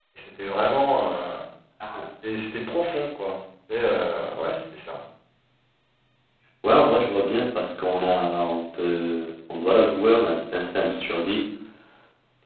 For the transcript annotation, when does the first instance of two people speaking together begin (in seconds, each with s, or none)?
none